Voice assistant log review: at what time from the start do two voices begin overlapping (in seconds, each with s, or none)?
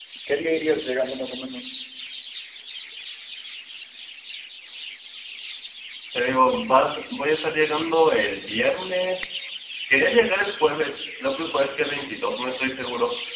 none